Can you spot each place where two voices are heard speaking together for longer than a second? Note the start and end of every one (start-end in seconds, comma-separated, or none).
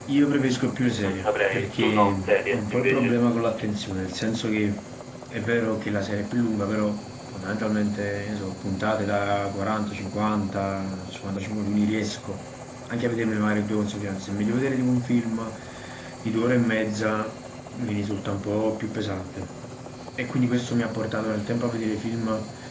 1.0-3.2